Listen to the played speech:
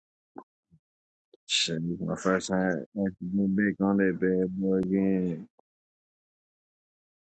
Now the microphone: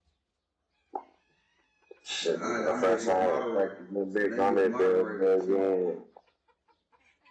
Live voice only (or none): And I, I made you a moderator. So now you're a moderator, you feel me?